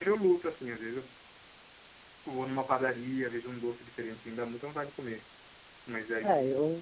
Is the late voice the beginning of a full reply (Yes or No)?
Yes